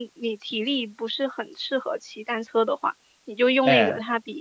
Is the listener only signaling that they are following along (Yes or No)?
Yes